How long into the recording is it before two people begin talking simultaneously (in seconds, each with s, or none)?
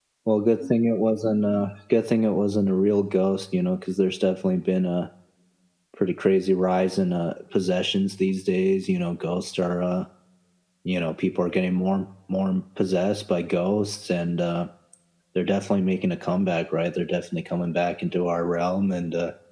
none